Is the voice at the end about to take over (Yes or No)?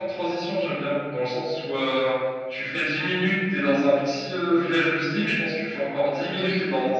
No